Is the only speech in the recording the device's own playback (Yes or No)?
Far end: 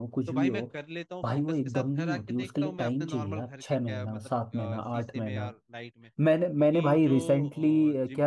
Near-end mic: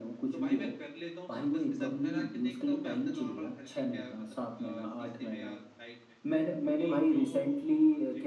Yes